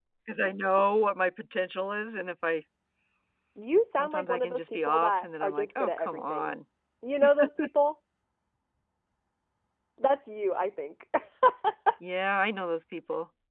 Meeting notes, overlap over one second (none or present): present